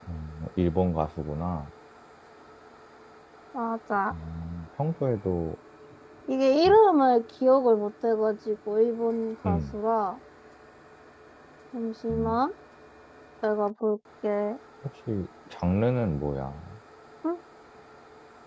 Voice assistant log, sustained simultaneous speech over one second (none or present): none